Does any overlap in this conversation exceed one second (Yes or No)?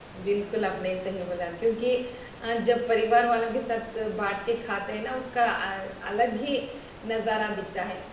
No